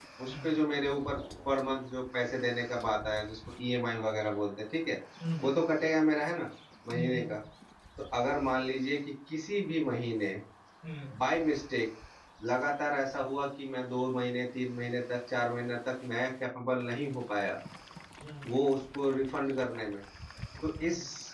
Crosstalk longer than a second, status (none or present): none